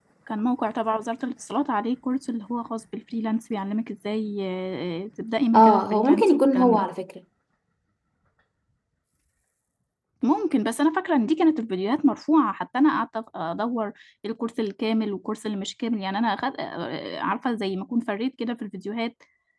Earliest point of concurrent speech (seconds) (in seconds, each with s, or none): 5.5 s